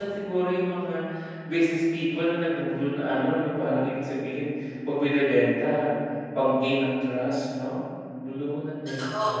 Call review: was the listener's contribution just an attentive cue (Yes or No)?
No